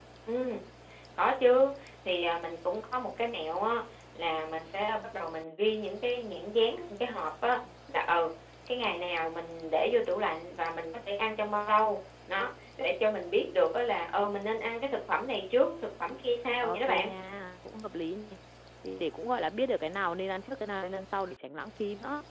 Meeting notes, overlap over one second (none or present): none